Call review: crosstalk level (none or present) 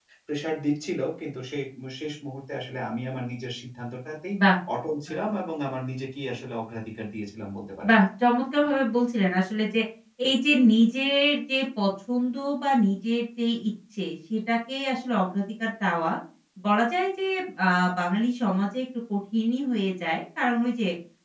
none